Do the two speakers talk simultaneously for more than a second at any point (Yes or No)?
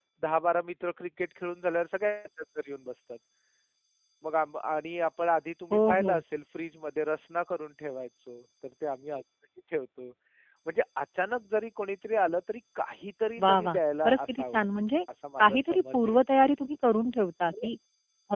Yes